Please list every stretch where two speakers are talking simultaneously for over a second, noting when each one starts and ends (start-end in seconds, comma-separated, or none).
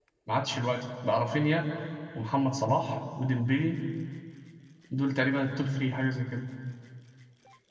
none